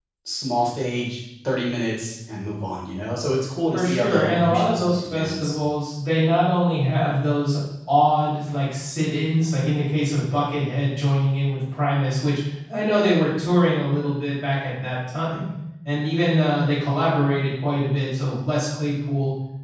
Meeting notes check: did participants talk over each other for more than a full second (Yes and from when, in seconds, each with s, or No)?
Yes, from 3.7 s